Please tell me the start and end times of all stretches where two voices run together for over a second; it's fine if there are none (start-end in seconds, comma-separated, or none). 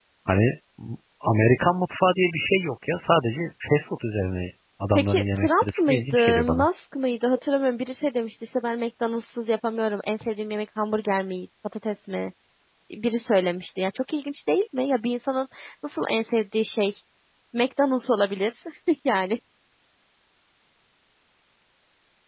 5.0-6.7